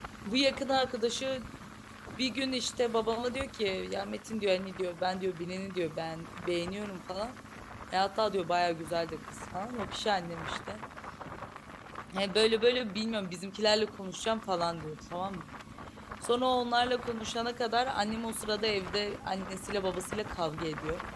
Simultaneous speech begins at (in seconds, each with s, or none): none